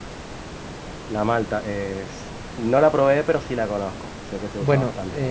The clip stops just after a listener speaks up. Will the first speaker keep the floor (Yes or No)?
No